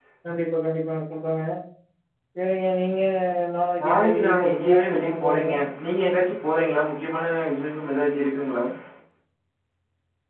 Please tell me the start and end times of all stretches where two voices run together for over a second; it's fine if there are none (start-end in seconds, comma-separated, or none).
3.8-5.5